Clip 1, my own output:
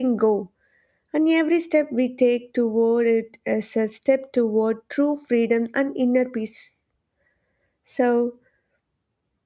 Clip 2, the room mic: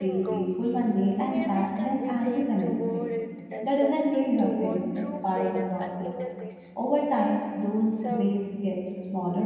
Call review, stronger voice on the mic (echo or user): user